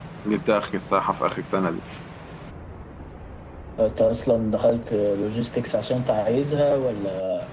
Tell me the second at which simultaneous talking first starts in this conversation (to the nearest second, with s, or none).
none